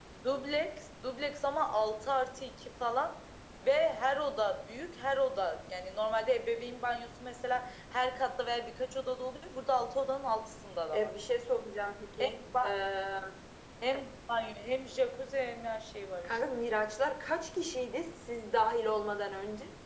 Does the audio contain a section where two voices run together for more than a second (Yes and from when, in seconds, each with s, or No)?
No